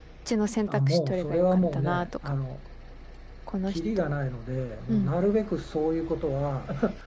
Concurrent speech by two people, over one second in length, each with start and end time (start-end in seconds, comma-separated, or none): 0.7-2.1